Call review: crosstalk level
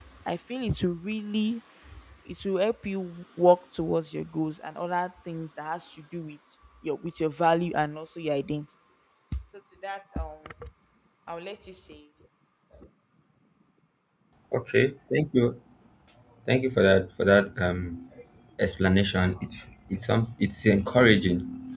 none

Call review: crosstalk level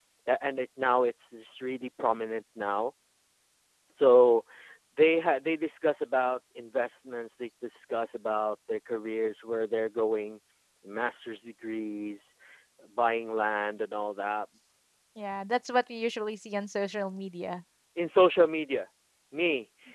none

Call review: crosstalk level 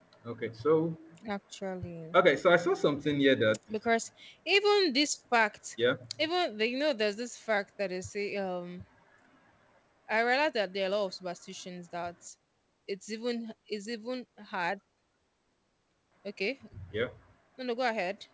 none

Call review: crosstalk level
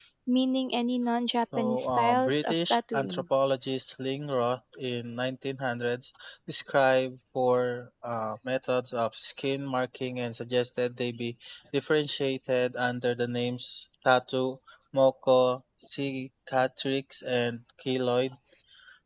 present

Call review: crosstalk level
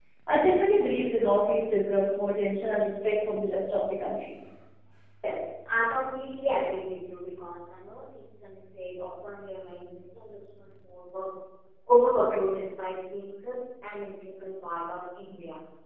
none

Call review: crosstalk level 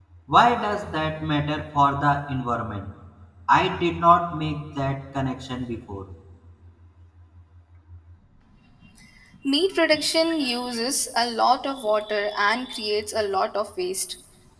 none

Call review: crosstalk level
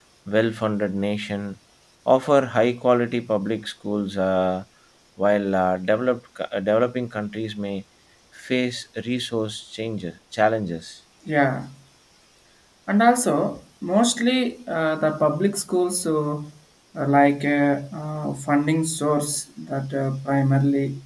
none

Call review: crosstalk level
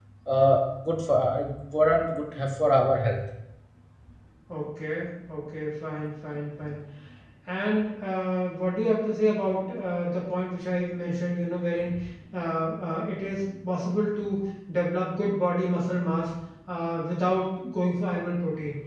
none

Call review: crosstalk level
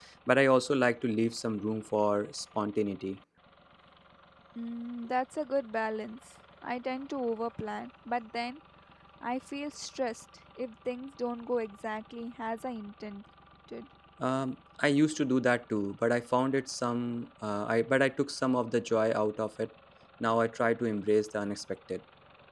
none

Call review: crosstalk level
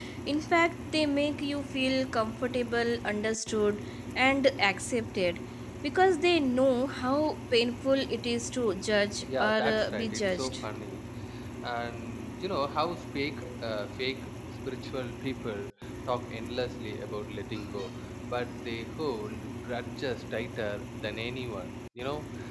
present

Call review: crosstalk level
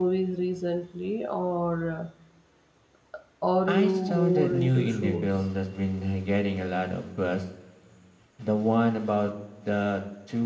present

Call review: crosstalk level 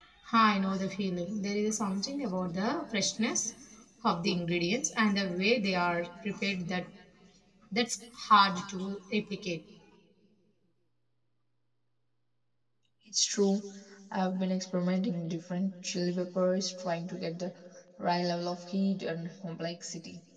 none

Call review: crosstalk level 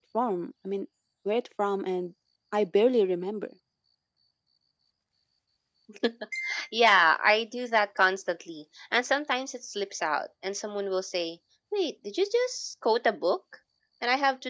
none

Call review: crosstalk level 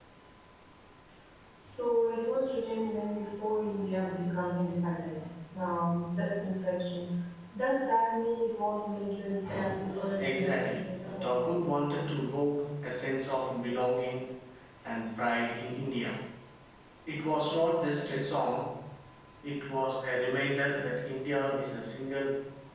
present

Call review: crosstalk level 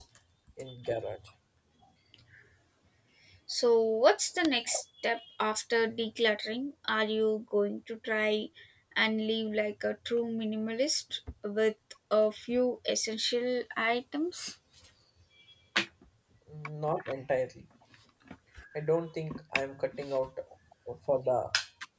none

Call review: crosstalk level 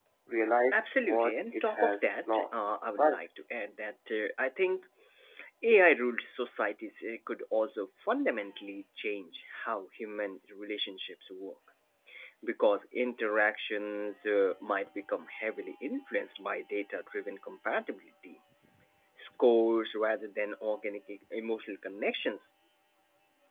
present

